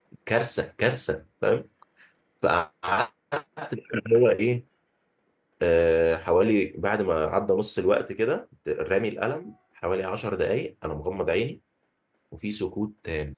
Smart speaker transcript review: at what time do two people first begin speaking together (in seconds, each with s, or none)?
none